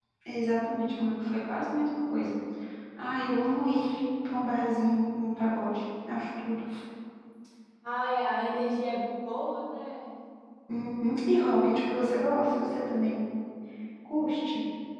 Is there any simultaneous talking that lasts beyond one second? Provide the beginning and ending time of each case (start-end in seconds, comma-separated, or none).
none